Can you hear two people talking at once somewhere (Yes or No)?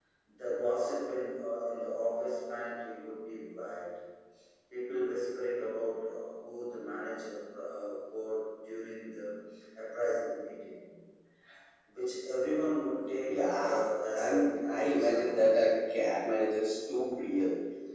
Yes